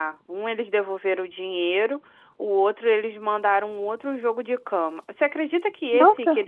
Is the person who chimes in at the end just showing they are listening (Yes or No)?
Yes